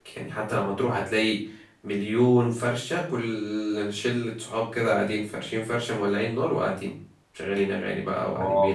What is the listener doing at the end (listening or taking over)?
taking over